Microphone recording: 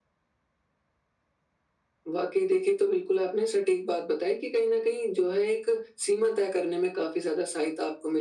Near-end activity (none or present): none